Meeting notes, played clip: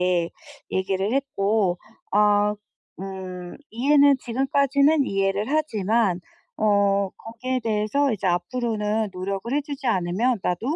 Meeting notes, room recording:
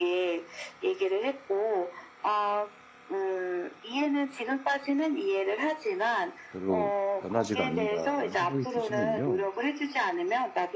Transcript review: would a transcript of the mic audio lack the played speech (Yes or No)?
No